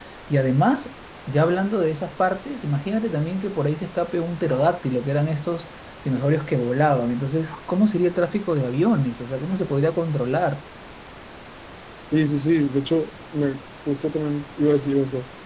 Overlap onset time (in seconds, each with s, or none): none